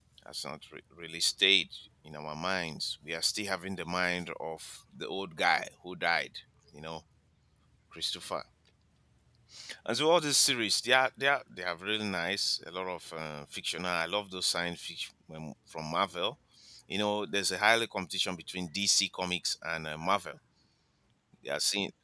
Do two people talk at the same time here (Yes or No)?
No